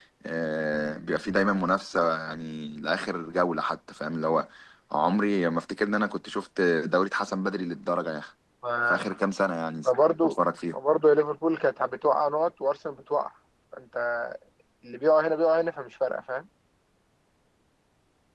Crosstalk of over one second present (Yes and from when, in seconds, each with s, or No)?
No